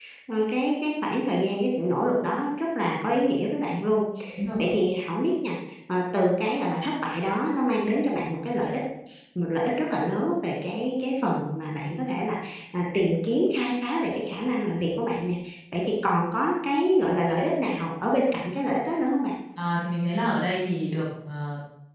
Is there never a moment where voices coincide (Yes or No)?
Yes